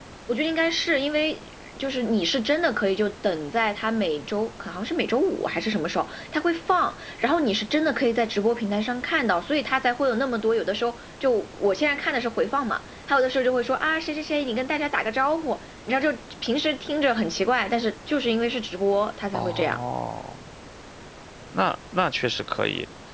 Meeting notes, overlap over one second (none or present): none